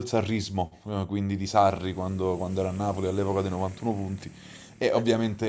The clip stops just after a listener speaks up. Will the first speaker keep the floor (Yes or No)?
Yes